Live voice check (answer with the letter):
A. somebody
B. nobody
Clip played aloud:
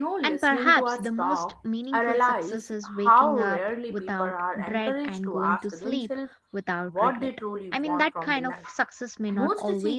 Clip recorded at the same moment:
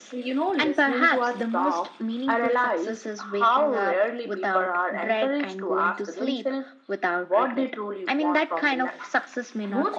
B